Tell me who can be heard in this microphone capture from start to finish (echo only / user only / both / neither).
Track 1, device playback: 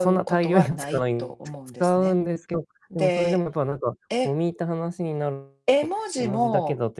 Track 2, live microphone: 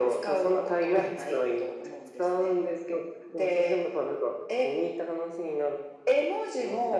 echo only